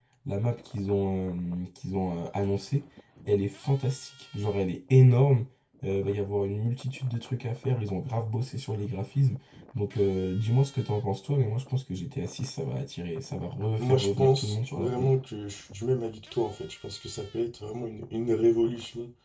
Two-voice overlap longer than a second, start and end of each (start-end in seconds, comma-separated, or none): 13.8-15.1